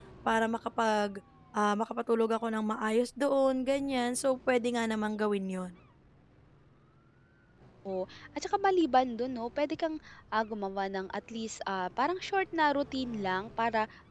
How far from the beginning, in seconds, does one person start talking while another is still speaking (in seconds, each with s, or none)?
none